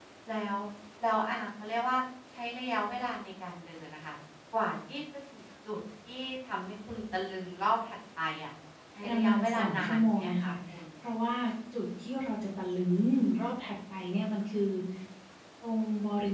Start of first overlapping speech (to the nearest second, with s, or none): 9 s